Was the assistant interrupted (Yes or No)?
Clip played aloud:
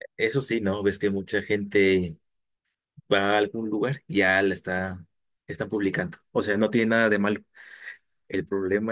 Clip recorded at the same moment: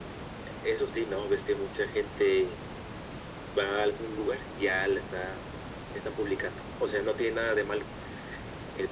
No